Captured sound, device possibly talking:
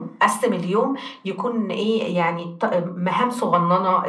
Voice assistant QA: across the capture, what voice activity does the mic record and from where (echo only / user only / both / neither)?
echo only